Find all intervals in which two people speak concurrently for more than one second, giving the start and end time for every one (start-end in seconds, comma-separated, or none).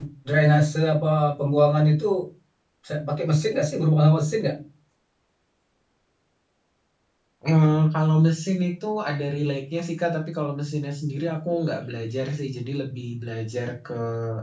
none